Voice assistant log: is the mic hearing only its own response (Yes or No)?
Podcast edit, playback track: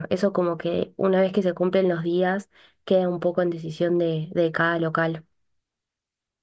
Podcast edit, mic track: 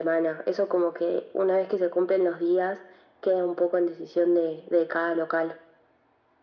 Yes